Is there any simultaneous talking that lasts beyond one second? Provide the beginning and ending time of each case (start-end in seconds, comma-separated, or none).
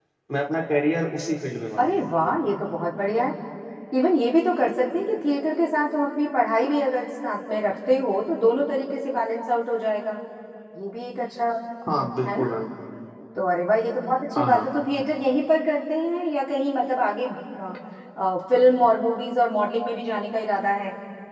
none